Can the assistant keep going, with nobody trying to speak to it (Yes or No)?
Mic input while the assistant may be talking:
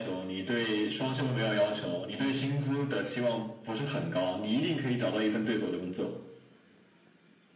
Yes